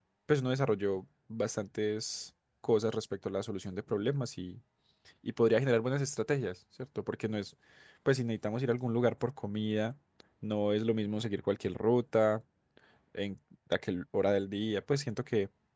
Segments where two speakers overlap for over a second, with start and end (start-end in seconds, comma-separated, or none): none